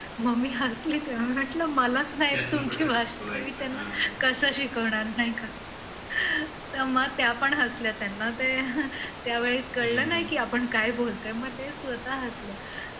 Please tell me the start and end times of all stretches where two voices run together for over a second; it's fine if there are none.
2.3-3.8

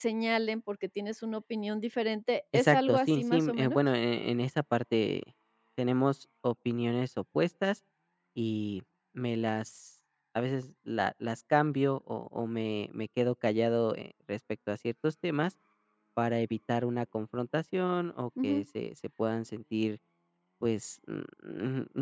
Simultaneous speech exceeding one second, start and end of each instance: 2.5-3.8

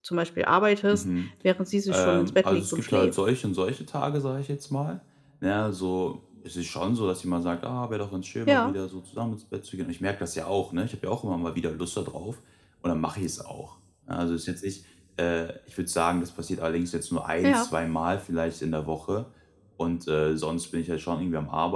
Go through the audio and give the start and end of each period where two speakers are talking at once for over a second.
1.9-3.1

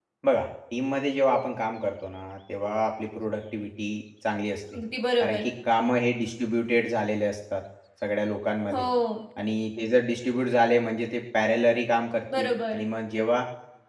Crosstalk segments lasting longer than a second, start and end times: none

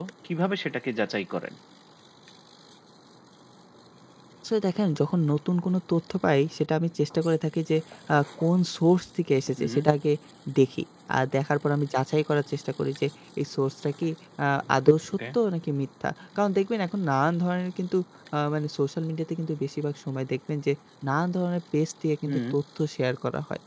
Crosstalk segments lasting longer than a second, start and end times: none

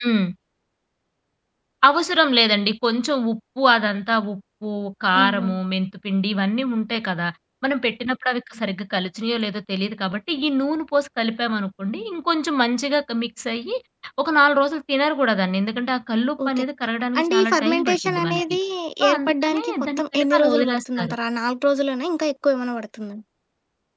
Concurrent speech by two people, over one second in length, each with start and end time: 17.2-18.6, 19.1-21.2

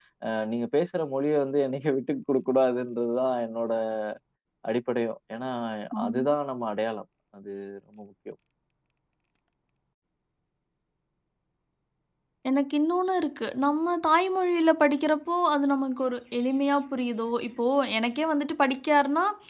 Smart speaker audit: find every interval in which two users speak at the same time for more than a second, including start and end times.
none

